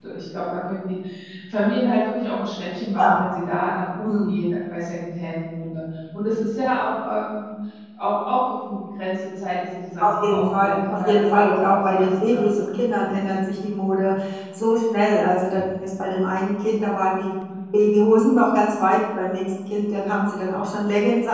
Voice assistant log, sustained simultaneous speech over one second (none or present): present